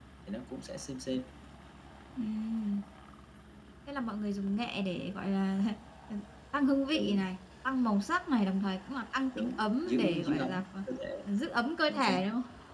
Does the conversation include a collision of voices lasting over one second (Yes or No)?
Yes